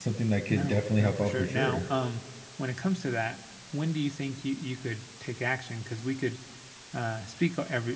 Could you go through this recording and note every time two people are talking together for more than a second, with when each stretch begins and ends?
0.5-1.9

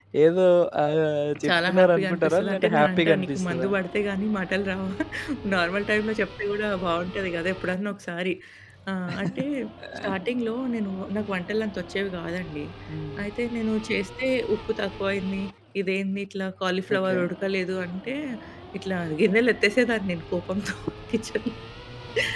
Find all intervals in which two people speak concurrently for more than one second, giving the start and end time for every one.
1.5-3.7

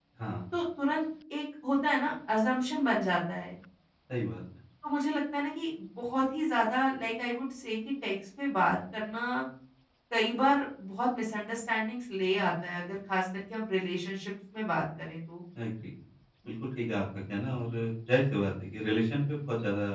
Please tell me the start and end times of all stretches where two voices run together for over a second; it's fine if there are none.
none

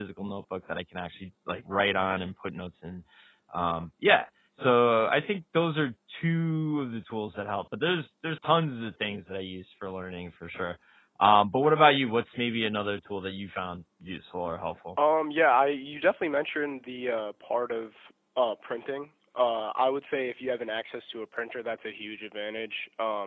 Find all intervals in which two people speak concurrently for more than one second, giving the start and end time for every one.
none

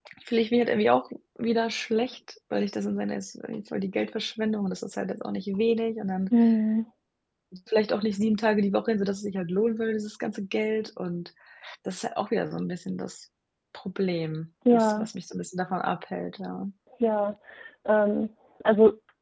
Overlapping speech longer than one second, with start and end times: none

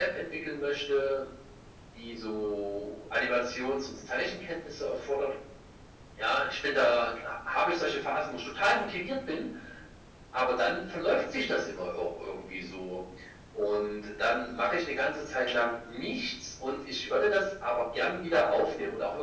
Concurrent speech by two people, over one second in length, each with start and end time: none

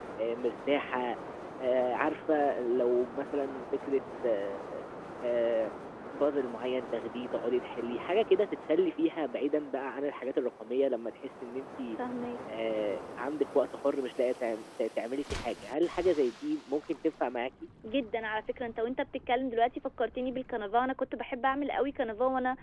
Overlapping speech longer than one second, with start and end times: none

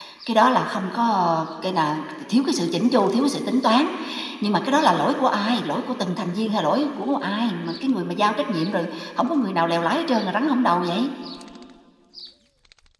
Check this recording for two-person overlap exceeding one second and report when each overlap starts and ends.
none

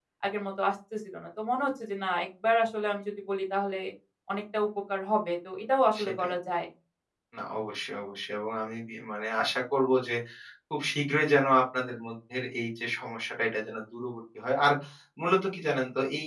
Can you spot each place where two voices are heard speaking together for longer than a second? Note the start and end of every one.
none

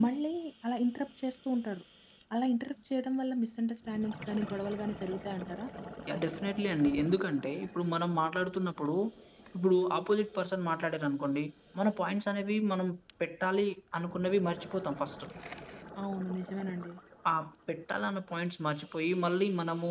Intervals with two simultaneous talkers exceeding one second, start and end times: none

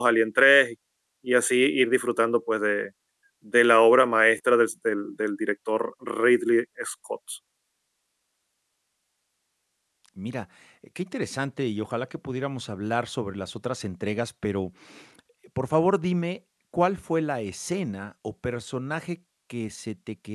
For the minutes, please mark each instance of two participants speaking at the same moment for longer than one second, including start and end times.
none

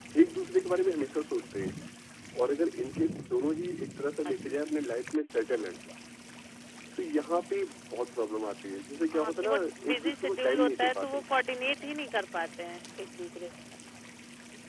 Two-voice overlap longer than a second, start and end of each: 9.1-11.2

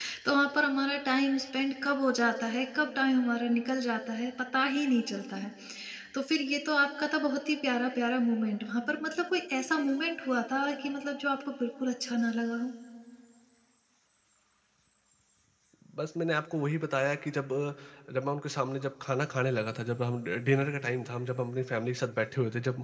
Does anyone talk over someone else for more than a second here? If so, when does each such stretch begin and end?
none

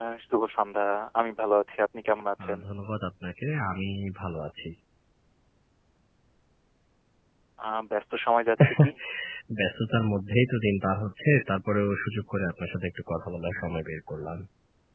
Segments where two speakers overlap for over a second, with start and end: none

